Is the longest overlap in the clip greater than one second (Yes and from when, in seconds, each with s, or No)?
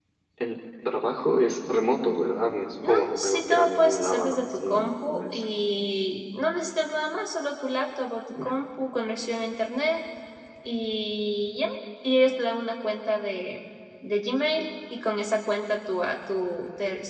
Yes, from 2.8 s